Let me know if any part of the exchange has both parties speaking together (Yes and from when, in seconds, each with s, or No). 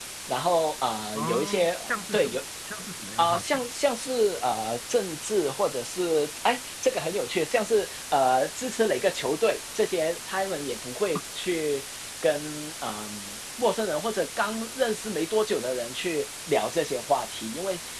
Yes, from 1.1 s